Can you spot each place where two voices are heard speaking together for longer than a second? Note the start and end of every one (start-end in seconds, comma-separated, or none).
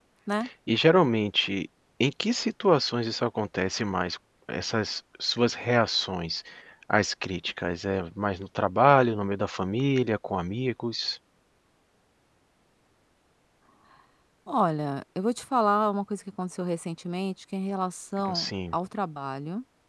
none